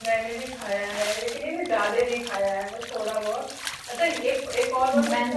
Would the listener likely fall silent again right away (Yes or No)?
Yes